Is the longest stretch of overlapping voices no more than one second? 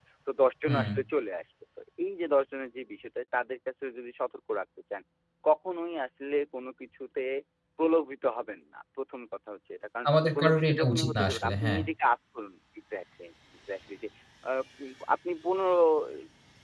No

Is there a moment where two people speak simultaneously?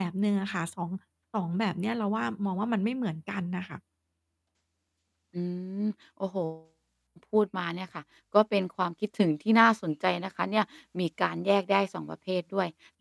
No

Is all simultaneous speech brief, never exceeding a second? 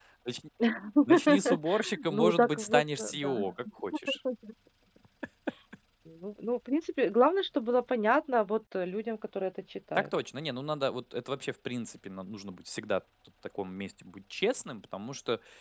No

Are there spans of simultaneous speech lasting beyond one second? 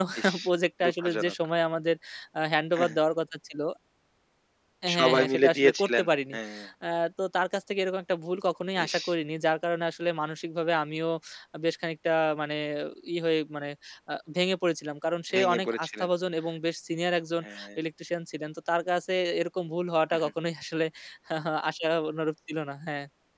Yes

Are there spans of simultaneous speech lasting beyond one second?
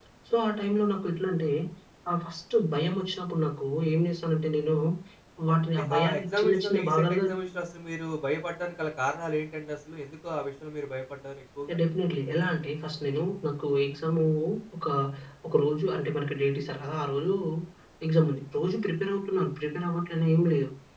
Yes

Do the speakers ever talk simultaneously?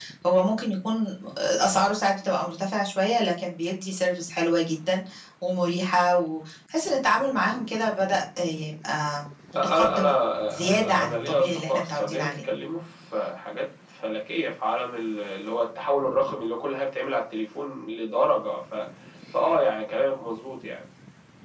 Yes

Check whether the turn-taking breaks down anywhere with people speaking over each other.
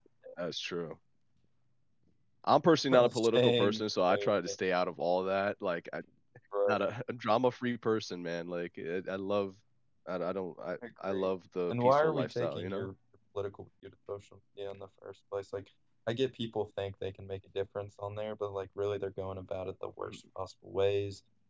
Yes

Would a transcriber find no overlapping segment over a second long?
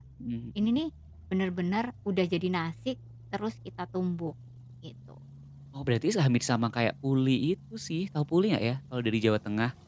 Yes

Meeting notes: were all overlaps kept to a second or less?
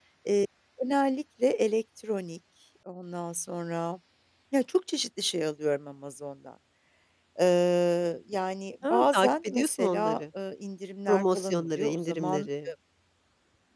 No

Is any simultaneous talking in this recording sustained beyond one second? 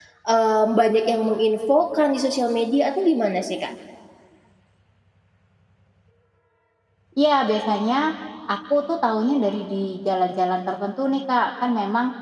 No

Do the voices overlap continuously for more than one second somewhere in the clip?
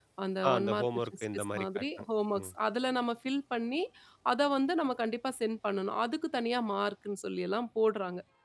Yes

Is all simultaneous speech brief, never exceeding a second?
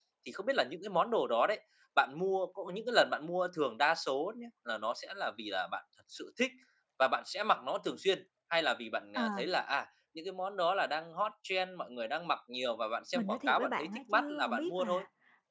No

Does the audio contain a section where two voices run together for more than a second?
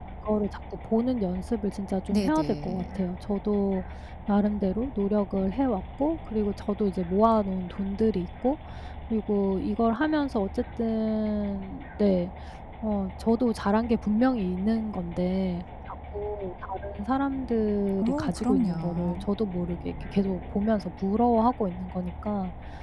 Yes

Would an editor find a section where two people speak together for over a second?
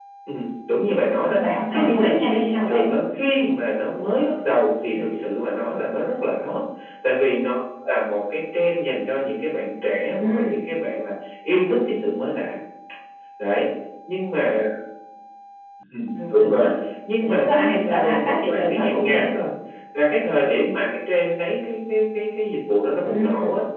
Yes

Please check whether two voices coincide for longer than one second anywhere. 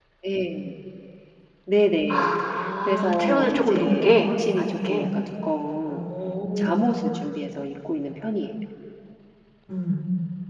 Yes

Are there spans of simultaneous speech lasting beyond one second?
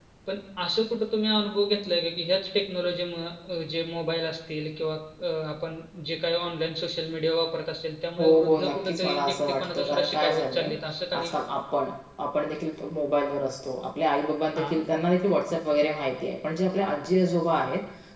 Yes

